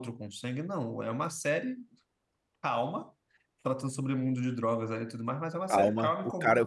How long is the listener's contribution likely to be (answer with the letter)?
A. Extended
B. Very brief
A